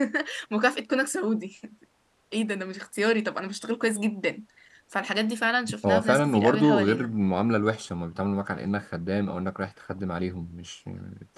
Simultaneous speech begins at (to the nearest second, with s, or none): 6 s